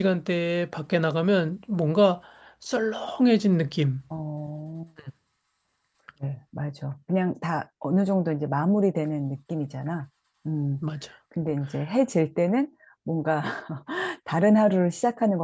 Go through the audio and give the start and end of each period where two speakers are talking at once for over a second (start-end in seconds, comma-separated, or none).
none